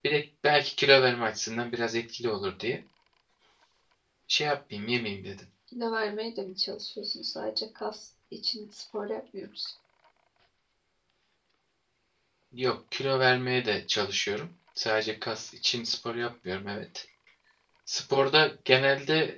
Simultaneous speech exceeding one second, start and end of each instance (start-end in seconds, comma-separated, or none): none